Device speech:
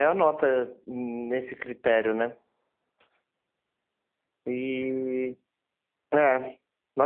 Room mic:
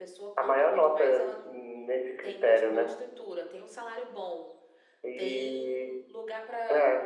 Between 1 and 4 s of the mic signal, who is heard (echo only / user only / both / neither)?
both